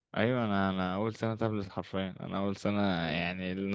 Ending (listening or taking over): listening